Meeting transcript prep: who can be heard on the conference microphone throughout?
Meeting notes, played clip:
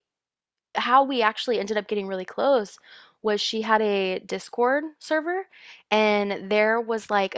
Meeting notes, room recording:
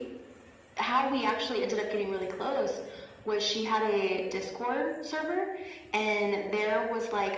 echo only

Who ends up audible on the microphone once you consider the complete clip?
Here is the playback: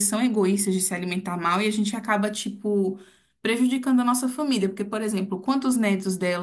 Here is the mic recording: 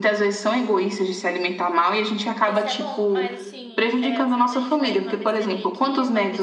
both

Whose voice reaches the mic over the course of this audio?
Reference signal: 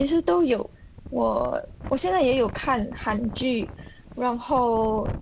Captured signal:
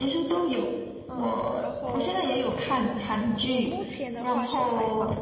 both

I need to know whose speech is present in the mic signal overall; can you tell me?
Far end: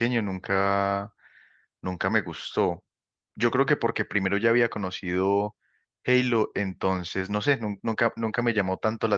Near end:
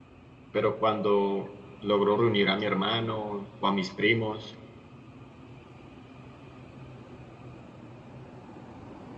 user only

